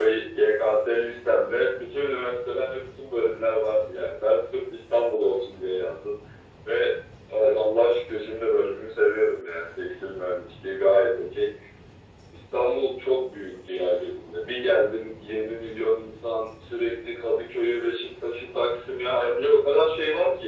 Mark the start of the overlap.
none

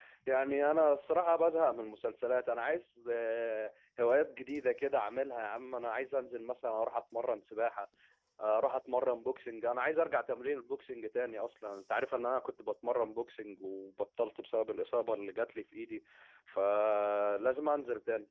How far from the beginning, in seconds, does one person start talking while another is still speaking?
none

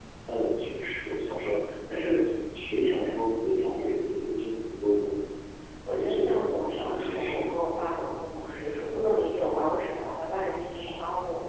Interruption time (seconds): 5.9 s

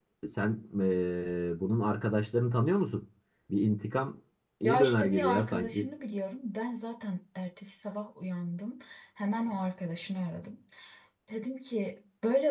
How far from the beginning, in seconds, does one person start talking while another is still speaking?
4.6 s

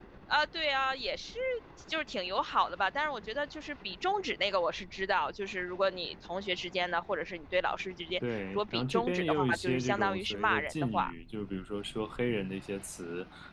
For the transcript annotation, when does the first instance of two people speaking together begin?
8.2 s

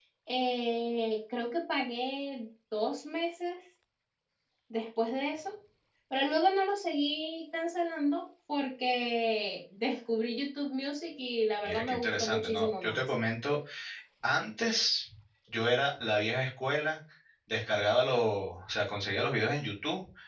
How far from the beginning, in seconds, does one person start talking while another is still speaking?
11.6 s

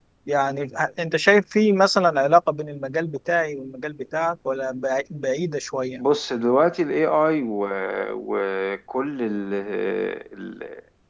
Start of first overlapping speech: none

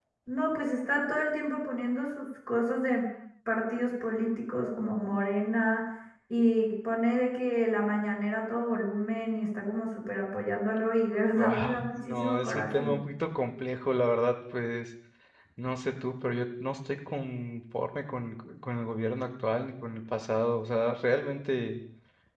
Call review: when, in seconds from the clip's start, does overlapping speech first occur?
11.4 s

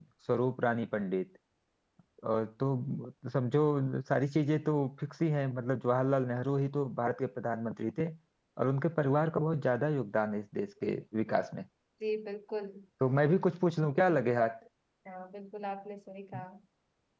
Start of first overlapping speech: none

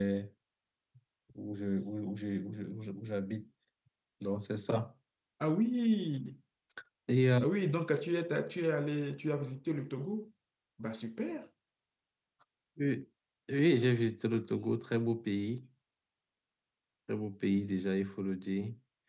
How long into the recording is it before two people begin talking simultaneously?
none

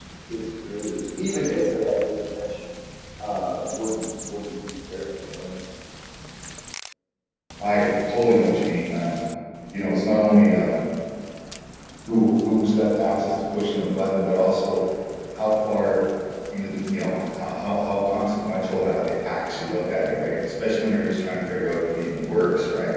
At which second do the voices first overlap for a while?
none

